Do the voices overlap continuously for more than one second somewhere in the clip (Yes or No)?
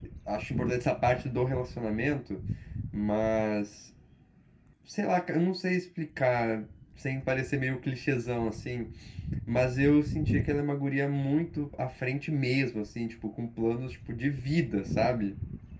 No